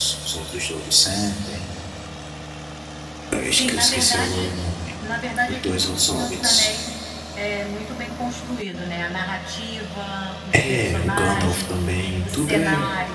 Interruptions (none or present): present